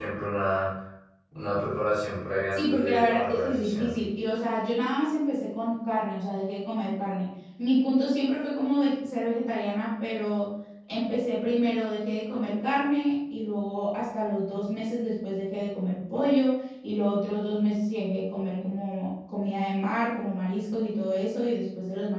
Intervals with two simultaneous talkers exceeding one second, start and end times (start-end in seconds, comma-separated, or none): 2.5-3.9